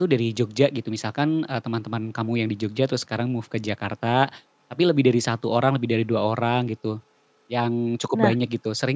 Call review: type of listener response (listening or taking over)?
listening